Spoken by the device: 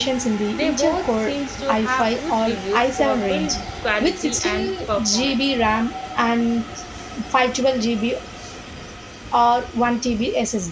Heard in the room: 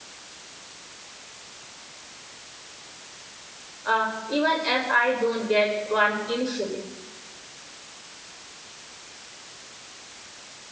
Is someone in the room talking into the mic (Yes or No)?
Yes